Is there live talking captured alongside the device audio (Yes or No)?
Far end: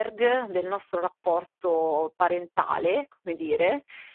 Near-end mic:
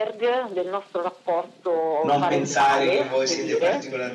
Yes